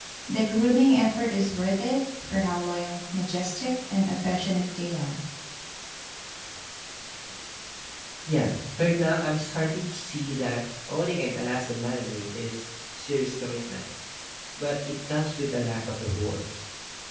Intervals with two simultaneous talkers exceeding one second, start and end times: none

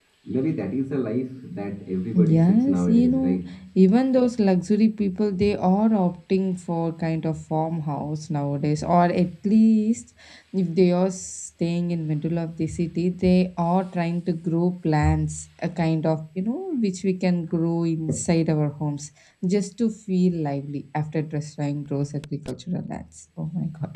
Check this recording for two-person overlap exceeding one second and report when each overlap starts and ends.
2.2-3.4

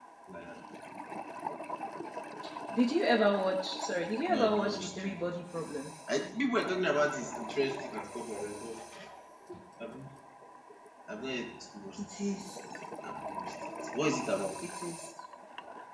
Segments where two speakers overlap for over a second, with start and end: 4.3-5.8

